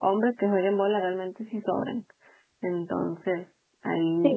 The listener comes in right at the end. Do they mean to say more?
Yes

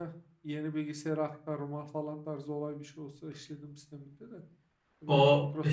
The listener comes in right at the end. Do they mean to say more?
Yes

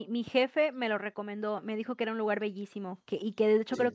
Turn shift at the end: No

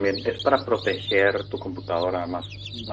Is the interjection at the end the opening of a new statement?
Yes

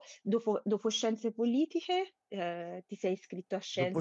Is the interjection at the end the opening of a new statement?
Yes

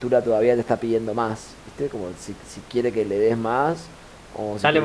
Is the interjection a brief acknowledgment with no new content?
No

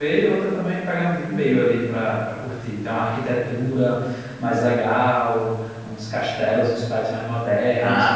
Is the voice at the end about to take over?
No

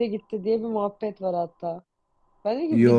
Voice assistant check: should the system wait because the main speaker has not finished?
Yes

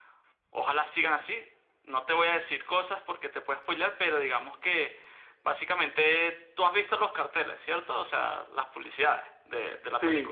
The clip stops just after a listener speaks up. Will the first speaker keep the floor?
No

